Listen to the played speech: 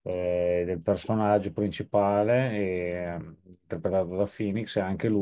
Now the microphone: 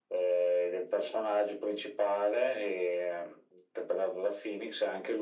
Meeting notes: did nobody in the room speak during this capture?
Yes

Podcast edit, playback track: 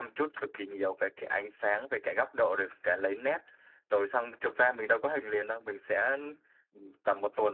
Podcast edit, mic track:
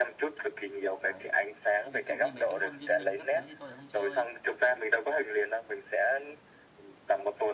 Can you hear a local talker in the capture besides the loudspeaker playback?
Yes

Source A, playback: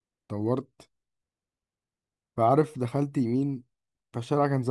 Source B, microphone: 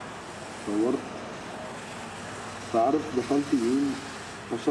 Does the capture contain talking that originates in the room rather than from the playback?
No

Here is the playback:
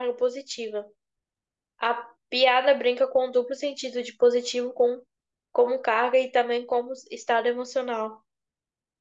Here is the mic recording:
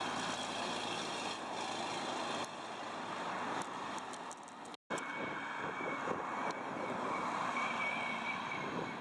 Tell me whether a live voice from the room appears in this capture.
No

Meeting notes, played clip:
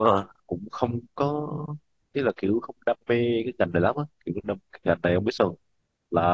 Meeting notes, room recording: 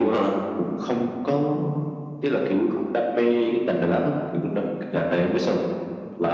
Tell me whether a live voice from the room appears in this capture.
No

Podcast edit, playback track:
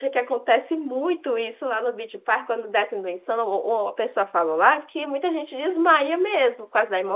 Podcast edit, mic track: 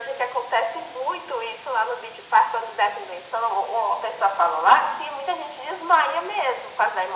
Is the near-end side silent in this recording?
Yes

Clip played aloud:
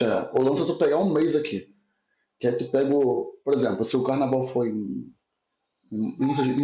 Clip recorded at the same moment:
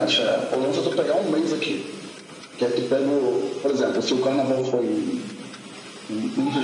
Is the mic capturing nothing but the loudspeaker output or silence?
Yes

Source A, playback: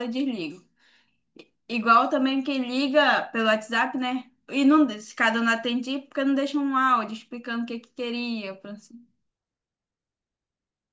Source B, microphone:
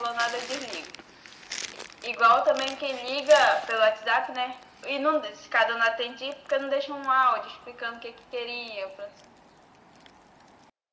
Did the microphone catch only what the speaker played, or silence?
Yes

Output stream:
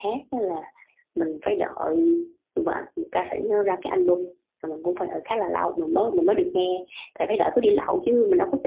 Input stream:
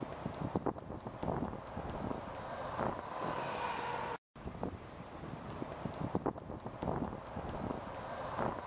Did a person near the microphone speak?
No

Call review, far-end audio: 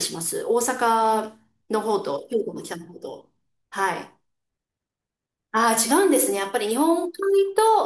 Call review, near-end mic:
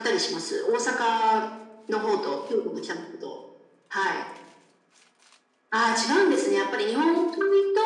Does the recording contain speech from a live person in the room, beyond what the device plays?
No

